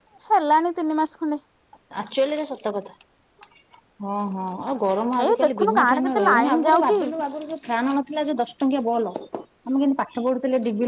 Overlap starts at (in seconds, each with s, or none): 5.2 s